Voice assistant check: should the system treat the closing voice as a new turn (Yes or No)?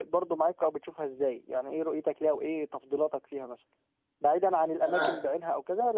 No